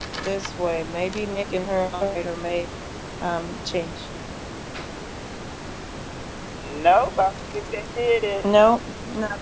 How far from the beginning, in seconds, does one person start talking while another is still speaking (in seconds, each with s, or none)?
none